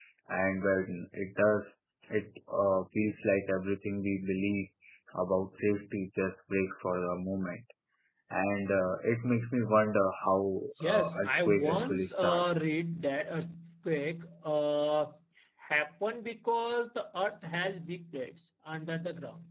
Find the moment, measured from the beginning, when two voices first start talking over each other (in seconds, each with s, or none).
10.8 s